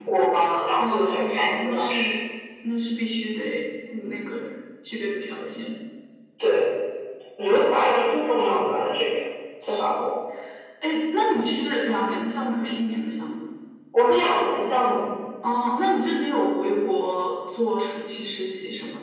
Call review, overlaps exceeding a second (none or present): present